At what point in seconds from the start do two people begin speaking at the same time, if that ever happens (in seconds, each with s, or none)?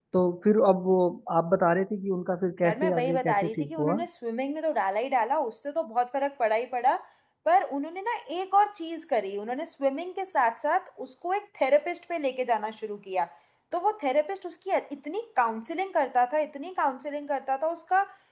2.6 s